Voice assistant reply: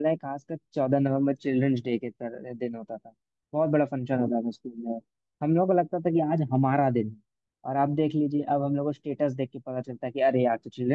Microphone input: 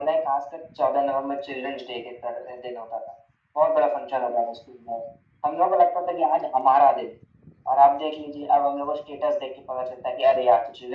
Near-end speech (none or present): none